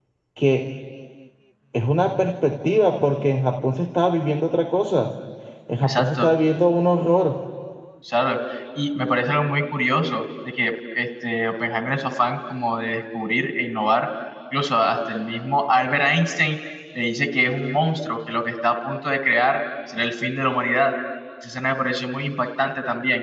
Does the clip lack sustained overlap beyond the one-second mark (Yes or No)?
Yes